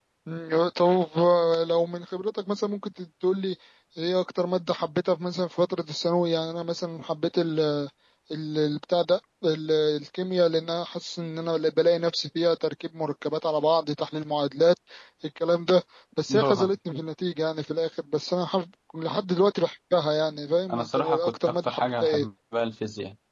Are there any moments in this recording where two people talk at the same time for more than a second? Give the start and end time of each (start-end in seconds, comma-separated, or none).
20.7-22.3